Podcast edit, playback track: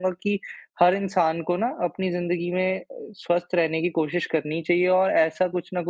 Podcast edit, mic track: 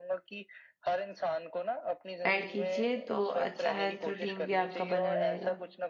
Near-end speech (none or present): present